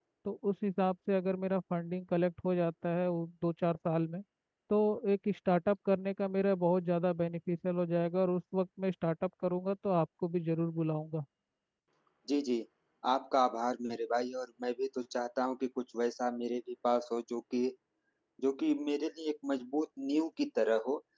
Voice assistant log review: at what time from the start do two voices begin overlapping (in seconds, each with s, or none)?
none